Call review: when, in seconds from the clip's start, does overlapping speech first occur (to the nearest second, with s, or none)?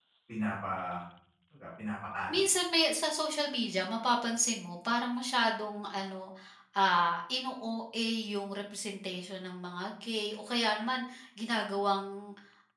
none